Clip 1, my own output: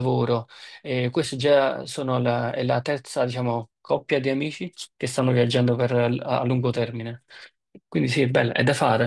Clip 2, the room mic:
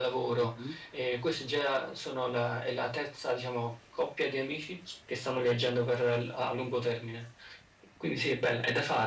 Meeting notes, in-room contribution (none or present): present